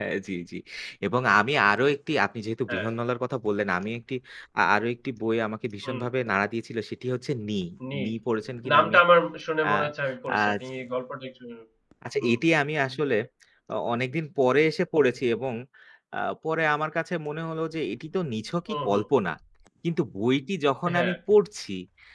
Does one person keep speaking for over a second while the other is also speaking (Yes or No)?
No